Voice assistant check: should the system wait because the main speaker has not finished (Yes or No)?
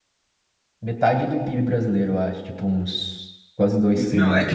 No